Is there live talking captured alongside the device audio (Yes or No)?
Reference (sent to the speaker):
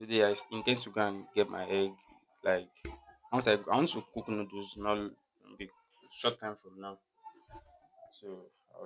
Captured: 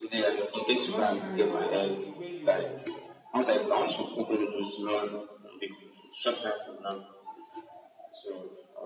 Yes